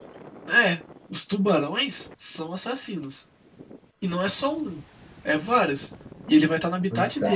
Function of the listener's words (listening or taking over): listening